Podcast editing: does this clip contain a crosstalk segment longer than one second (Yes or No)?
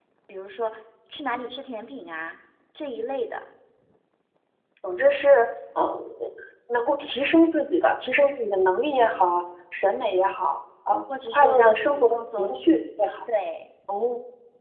Yes